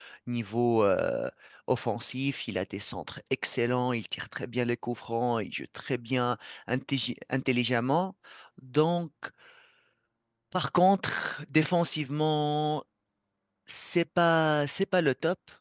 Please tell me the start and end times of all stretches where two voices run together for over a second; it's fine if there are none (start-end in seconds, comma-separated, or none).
none